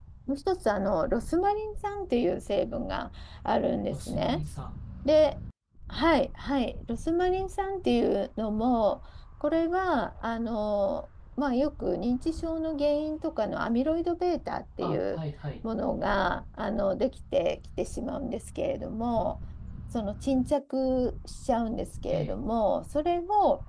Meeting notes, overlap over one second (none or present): none